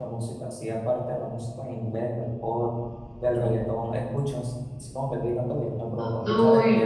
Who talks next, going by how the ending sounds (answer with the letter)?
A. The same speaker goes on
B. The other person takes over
B